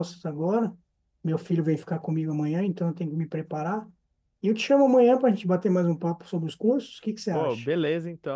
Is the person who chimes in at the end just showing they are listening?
No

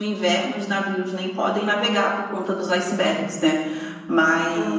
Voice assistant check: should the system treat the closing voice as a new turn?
No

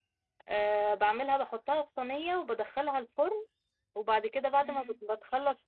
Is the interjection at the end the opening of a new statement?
No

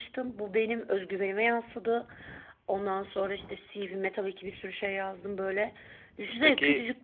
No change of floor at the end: Yes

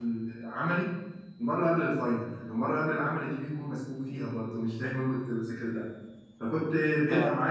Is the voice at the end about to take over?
No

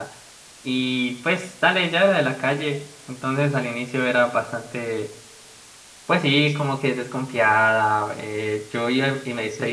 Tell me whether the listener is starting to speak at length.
Yes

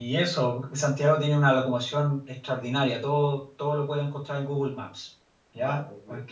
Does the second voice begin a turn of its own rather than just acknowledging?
No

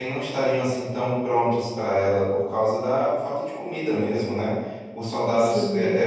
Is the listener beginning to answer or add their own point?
No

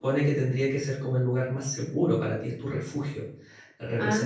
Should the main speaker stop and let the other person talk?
No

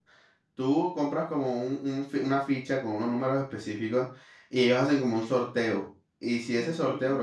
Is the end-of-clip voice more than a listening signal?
No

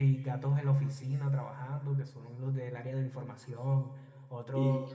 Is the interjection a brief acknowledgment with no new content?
Yes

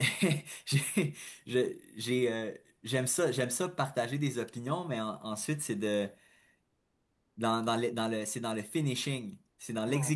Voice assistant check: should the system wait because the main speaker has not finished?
Yes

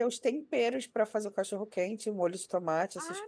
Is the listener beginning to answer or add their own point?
Yes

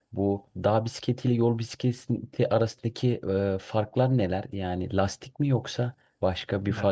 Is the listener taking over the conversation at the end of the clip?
Yes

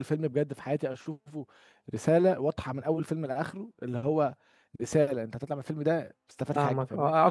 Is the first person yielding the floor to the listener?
Yes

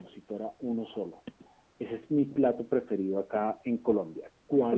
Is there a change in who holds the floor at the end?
Yes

